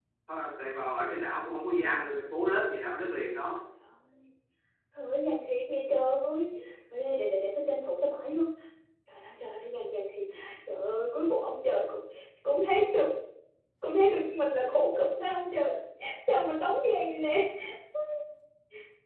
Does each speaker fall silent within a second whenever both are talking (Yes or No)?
Yes